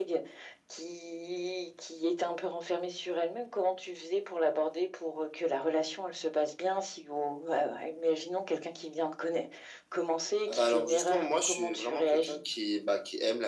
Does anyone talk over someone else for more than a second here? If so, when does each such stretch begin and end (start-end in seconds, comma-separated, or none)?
10.5-12.4